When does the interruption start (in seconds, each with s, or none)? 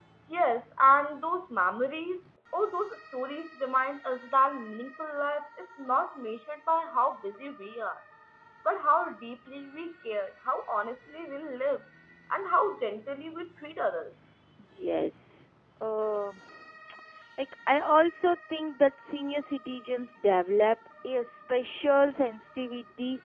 none